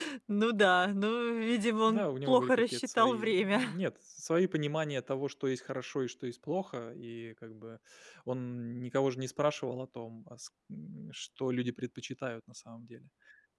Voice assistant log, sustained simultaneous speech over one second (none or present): present